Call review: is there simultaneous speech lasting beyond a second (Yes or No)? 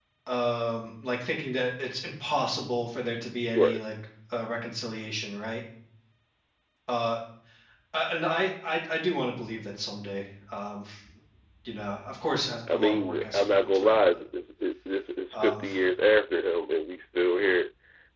Yes